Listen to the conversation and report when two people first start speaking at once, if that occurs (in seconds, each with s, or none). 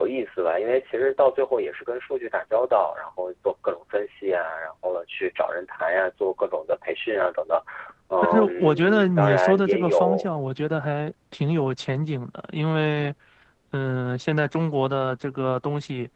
8.2 s